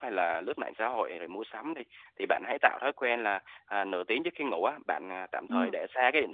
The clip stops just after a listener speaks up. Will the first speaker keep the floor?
Yes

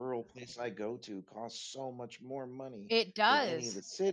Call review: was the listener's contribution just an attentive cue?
Yes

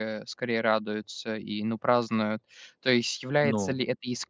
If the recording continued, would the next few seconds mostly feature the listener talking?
No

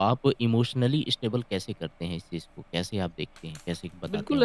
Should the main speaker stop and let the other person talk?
Yes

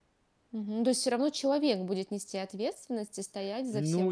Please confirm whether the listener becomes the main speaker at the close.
Yes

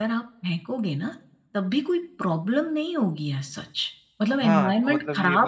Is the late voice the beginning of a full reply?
Yes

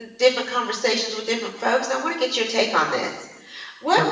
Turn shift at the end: No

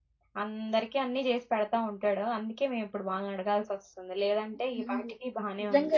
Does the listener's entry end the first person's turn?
Yes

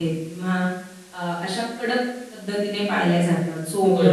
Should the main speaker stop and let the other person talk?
Yes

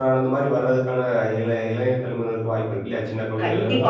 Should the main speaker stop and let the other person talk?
Yes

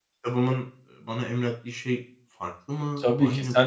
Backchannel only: No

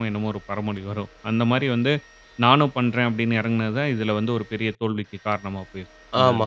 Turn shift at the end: Yes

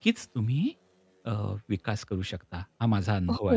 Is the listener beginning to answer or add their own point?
Yes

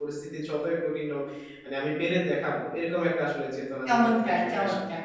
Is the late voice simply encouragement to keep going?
No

